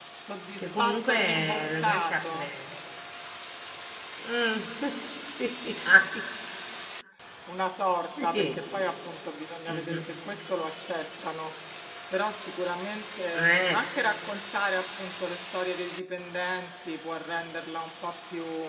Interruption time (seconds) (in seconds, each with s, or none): 0.6 s